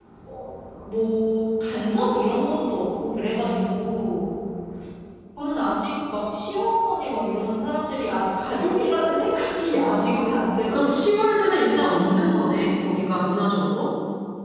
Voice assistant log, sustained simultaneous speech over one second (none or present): present